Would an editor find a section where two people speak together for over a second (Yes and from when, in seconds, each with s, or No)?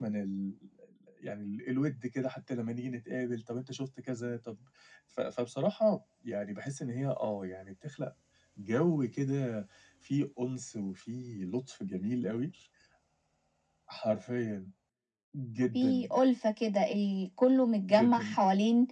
No